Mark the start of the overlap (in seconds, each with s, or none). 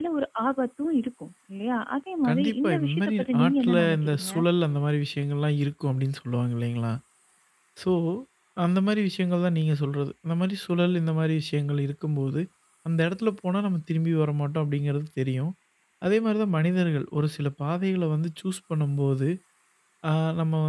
2.2 s